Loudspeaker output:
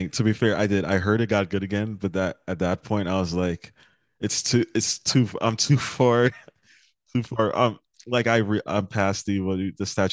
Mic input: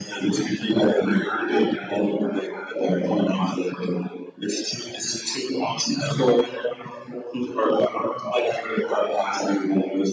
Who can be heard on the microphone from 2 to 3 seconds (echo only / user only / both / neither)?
echo only